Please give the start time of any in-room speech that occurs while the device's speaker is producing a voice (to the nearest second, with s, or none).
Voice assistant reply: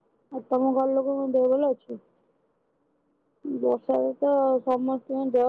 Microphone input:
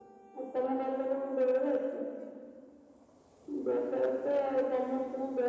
none